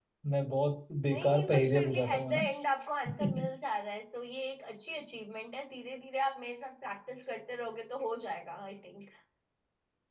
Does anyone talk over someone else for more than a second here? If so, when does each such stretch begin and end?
1.1-2.4

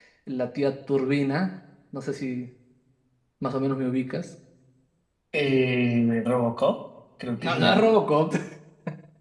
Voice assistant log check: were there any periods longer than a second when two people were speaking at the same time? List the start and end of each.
none

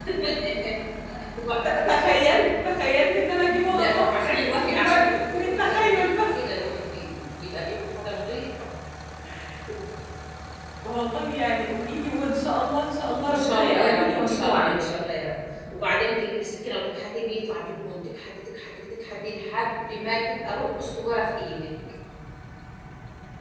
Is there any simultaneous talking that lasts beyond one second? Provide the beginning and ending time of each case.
3.6-6.4, 13.2-14.9

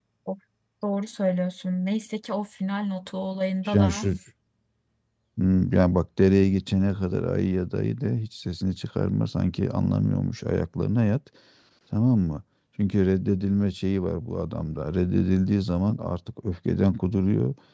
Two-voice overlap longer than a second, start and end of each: none

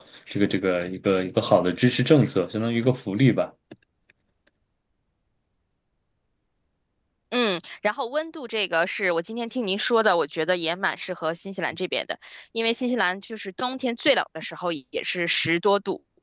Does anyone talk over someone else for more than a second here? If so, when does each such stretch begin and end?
none

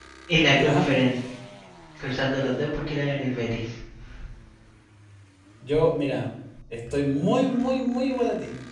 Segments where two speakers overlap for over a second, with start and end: none

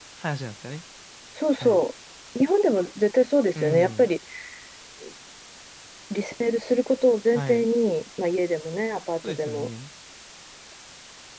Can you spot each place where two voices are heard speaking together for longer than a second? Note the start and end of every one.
none

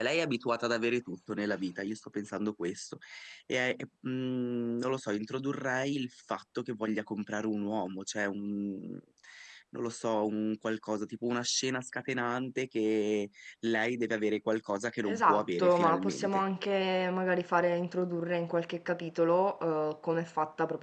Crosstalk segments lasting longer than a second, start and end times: 15.0-16.4

